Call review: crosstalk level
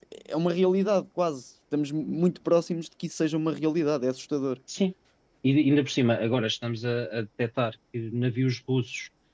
none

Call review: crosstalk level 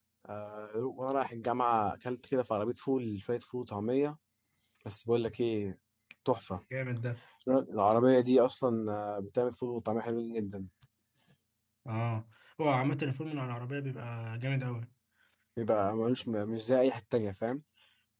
none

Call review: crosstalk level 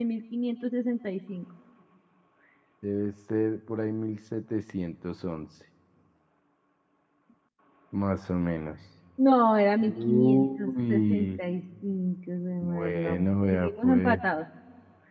present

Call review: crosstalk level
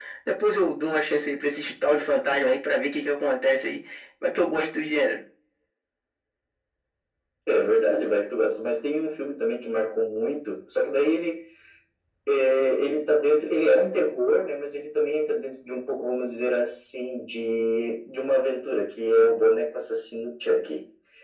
none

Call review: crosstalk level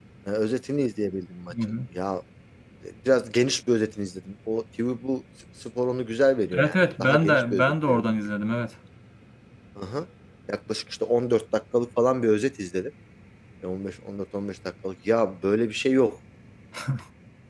present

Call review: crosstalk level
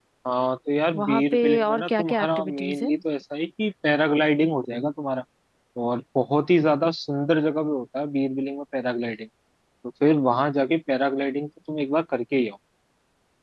present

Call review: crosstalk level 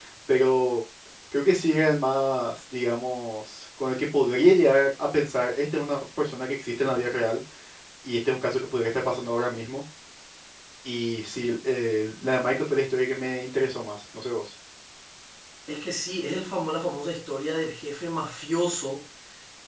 none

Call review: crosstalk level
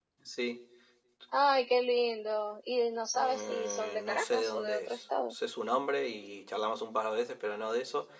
present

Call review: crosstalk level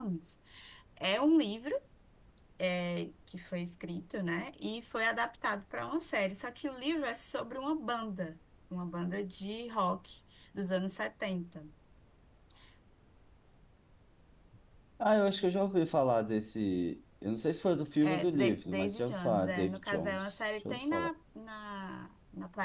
present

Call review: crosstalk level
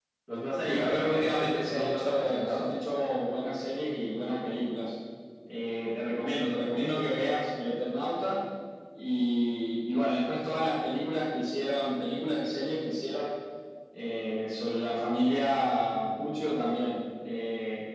present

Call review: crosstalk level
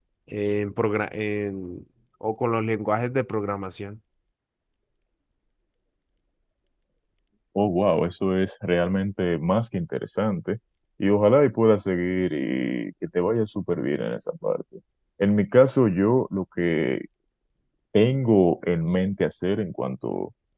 none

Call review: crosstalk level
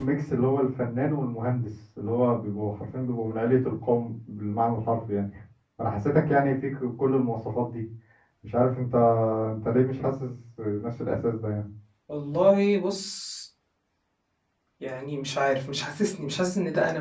none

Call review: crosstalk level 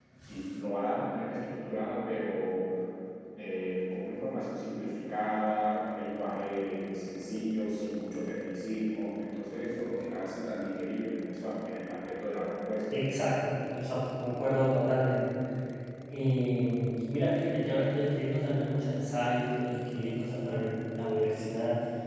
none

